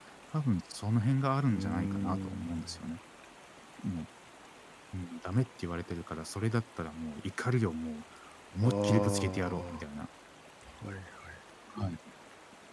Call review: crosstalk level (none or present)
present